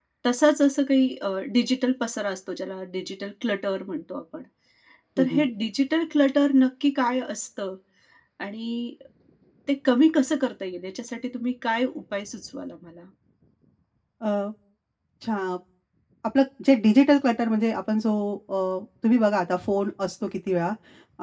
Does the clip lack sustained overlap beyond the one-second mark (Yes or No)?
Yes